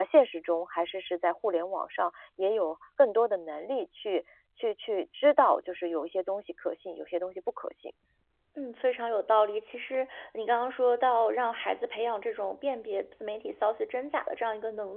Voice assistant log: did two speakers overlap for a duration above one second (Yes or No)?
No